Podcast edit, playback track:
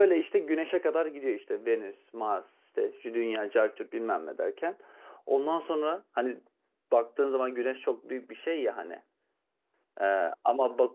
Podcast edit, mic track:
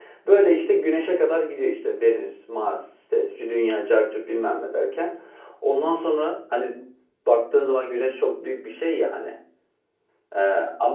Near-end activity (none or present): none